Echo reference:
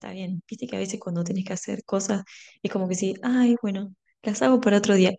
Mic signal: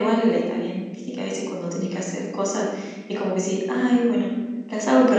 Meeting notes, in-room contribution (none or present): none